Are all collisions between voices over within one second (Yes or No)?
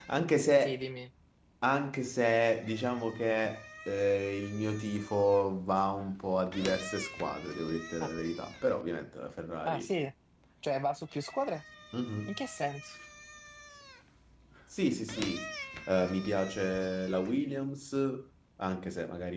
Yes